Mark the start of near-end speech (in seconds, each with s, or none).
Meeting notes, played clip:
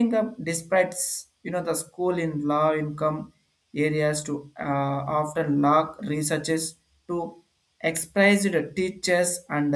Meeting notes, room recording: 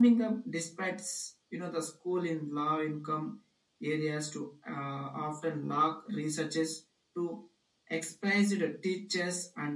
none